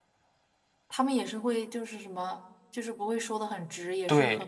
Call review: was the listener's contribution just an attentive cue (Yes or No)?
No